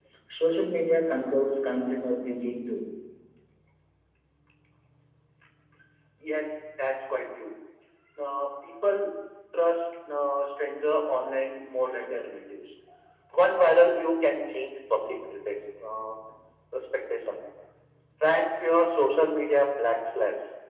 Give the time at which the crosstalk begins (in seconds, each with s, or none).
none